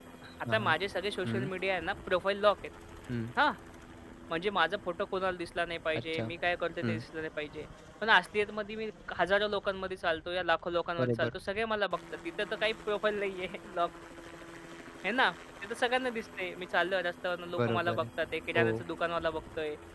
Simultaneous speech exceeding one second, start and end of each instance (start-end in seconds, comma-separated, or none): none